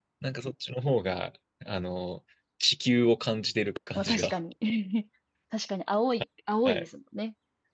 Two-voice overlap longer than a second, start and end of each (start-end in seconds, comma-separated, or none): none